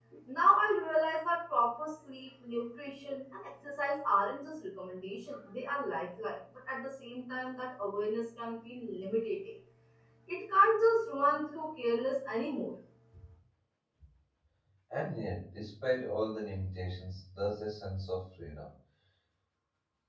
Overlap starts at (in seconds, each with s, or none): none